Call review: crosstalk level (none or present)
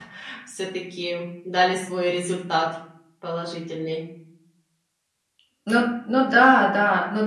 none